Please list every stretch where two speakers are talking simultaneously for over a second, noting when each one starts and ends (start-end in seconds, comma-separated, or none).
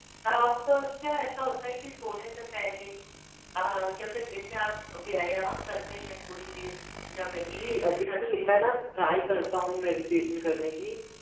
7.5-8.7